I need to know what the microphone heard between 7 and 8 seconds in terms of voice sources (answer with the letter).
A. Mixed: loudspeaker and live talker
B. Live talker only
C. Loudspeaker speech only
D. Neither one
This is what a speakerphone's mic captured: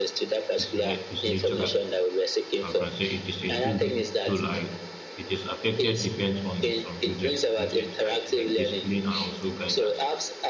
A